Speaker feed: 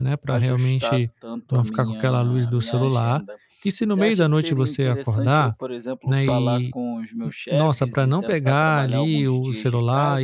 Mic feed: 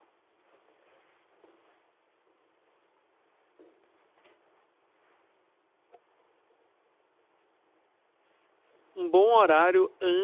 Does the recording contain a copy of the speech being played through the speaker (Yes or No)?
No